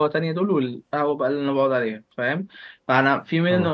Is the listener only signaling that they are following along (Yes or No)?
Yes